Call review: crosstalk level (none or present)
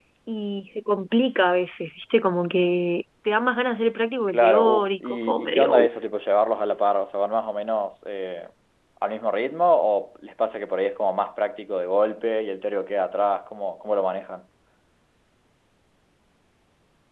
present